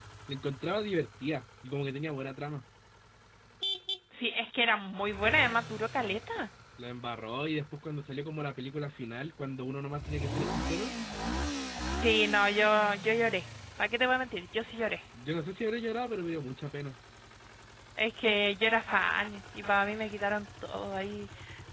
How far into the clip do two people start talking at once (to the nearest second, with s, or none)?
none